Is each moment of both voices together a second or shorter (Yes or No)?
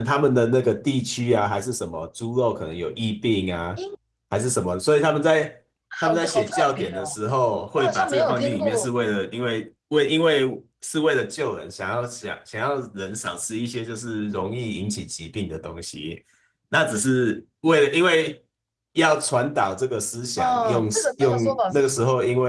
No